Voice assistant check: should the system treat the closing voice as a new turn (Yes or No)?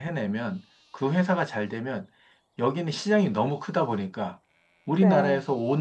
No